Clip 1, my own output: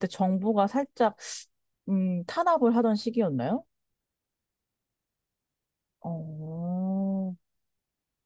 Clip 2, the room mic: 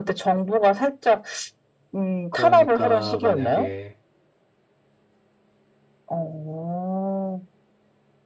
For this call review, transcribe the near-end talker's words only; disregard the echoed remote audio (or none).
그러니까 만약에